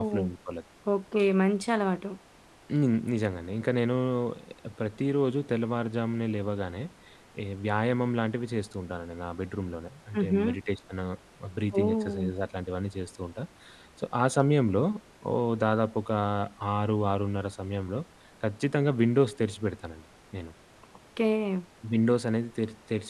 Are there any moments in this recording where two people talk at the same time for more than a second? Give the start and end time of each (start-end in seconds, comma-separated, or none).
none